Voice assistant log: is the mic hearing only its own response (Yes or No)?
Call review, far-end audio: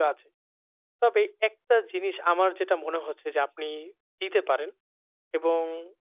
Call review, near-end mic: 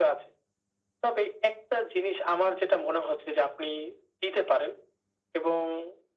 Yes